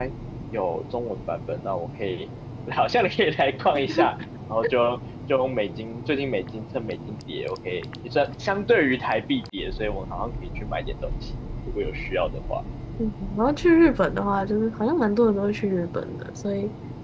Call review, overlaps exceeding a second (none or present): none